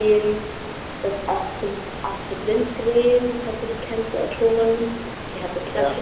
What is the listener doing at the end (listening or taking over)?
listening